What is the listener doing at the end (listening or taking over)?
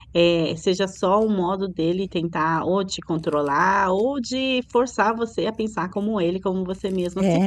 taking over